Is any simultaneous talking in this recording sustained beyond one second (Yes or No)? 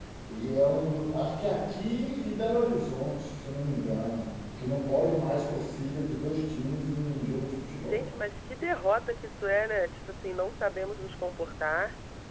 No